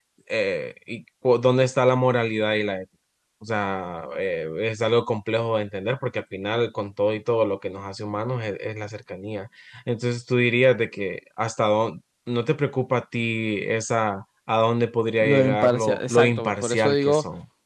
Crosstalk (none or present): present